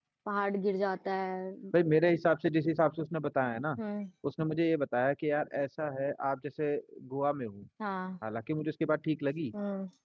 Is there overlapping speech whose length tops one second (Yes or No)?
No